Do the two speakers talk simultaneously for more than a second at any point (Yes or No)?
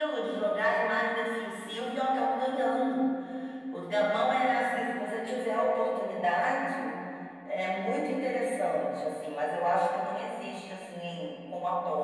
No